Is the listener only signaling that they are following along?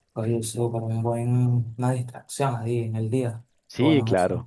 No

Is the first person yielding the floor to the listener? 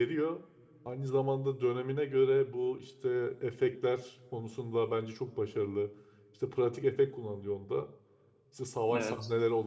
No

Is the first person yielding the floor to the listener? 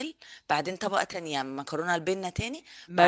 Yes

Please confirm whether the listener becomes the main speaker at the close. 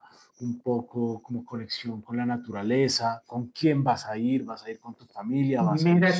Yes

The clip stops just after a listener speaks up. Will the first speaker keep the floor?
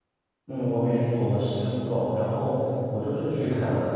Yes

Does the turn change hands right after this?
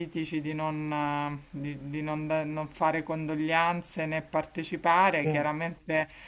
No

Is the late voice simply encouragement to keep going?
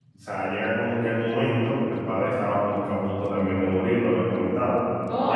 No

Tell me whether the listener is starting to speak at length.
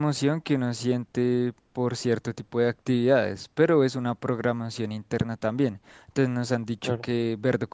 No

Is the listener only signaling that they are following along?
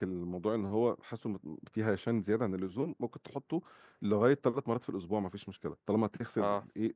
Yes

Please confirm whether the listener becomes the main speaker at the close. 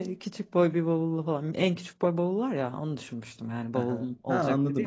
Yes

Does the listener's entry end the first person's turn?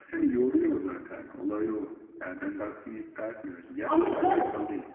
No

